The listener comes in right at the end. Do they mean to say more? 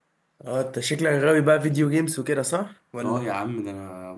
Yes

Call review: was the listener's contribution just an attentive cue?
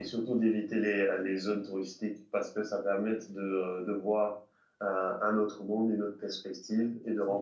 Yes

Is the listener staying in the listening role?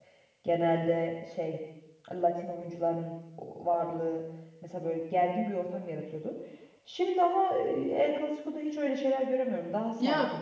No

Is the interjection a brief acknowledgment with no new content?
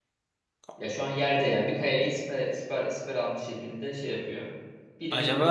No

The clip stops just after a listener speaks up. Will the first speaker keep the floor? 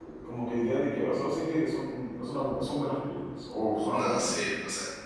No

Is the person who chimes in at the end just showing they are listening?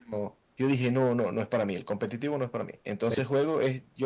Yes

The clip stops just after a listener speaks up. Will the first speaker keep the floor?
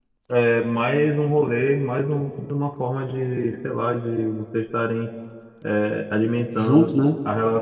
Yes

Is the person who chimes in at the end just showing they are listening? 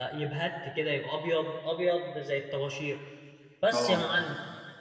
Yes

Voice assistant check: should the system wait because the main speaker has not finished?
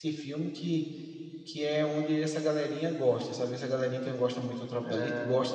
No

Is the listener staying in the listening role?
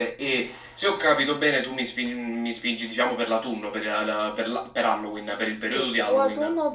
No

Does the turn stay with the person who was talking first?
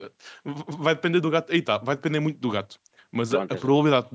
Yes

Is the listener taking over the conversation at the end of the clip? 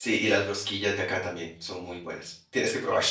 Yes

